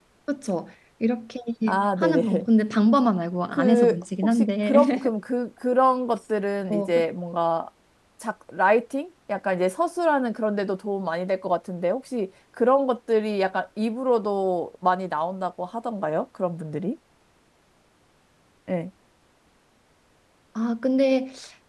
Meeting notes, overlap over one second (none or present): present